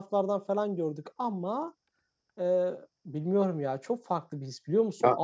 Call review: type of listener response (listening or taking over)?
listening